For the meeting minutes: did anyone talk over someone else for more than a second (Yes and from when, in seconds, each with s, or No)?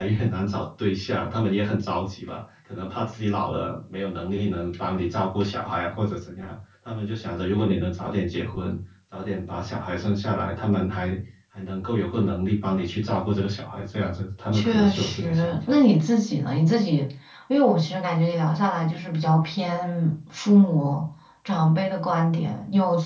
Yes, from 14.5 s